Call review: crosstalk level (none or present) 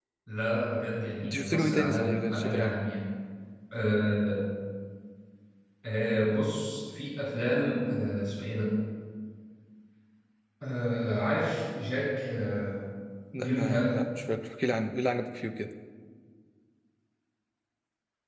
present